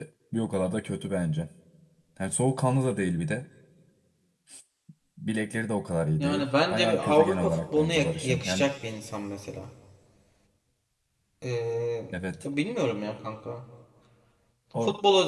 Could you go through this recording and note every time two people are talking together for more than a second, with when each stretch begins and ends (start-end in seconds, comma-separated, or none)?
6.2-8.7